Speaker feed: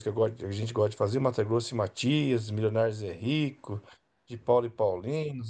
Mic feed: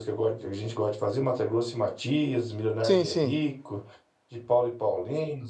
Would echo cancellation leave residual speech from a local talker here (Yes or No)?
Yes